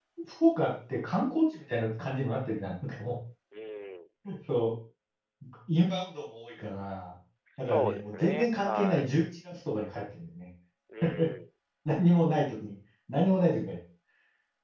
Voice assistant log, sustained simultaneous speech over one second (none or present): present